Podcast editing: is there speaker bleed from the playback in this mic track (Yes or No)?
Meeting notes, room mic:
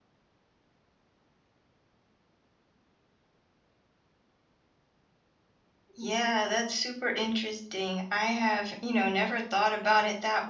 No